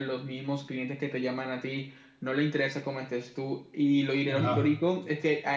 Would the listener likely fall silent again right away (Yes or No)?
Yes